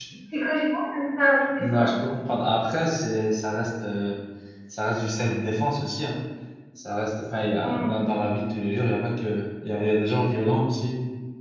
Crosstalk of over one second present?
No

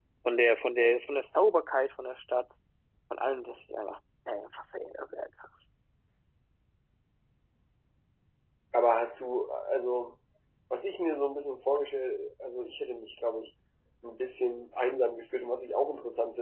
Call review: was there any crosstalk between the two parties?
No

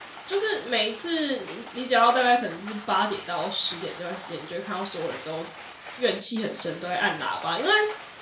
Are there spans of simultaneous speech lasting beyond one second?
No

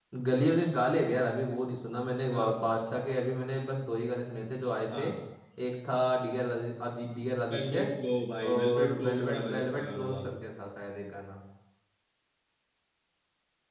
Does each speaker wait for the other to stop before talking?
No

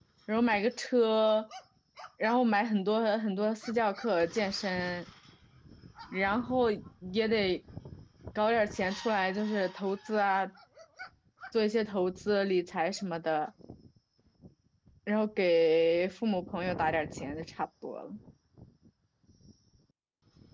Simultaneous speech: No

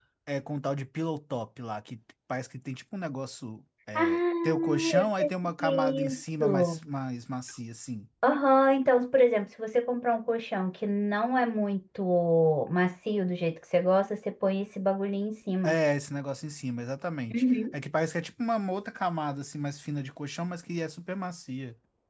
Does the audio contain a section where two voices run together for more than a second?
Yes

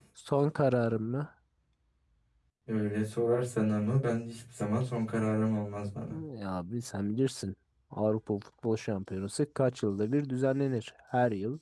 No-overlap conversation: Yes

